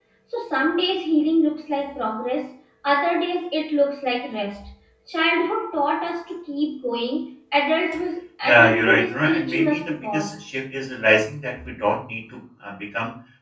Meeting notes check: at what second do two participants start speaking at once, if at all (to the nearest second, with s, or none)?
8 s